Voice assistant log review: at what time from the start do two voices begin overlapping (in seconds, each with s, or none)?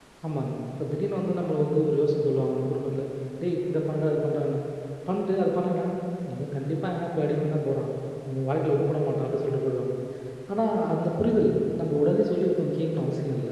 none